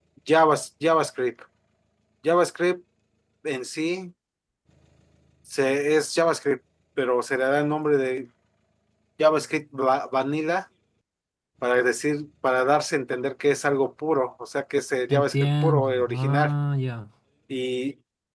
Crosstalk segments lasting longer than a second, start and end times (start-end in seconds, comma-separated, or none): 15.1-16.5